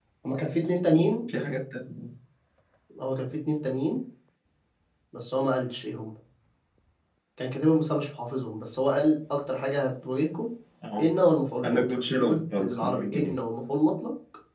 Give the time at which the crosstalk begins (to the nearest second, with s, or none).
12 s